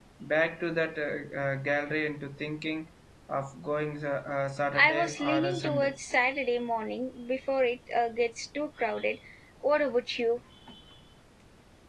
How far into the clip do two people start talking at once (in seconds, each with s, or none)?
4.8 s